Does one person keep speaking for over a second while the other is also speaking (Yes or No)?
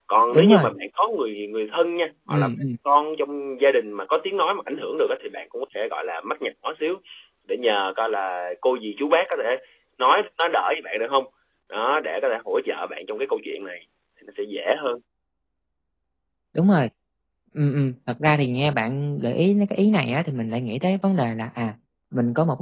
No